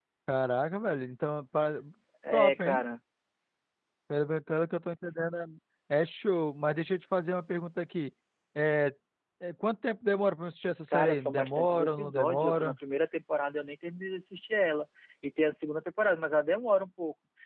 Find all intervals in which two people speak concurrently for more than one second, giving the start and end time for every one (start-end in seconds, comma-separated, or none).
10.9-12.7